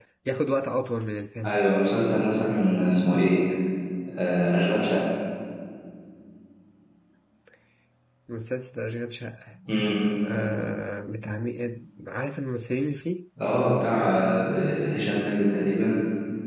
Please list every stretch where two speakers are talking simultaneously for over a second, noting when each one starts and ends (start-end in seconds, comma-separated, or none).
none